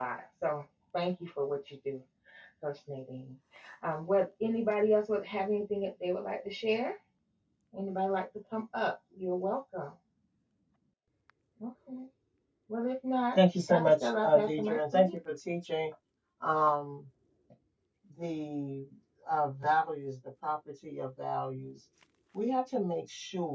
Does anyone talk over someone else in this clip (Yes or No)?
Yes